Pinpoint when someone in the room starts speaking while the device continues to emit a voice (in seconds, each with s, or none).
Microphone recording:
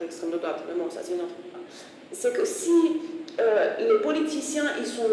none